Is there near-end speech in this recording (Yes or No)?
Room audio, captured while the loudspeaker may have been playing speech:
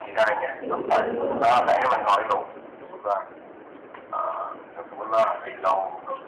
Yes